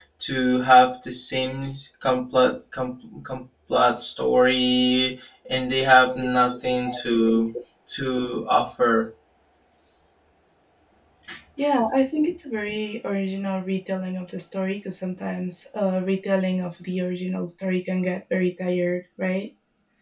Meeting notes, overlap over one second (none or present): none